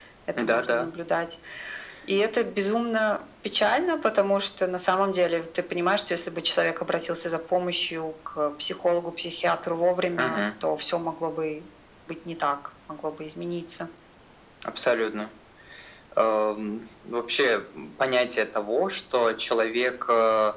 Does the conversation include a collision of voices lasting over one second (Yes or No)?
No